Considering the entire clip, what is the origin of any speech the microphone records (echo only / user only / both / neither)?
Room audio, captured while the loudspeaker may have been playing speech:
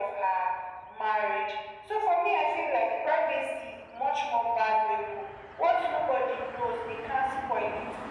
echo only